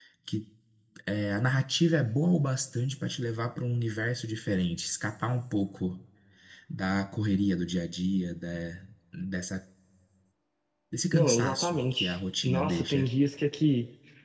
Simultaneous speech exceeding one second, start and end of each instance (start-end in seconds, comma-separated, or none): 11.1-13.1